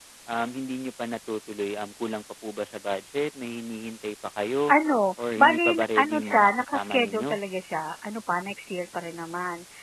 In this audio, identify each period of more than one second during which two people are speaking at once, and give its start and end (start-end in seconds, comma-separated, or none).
5.4-7.4